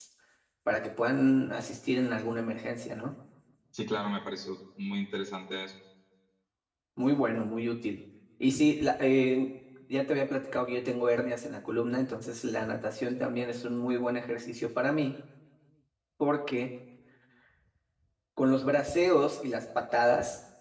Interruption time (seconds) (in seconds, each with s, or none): none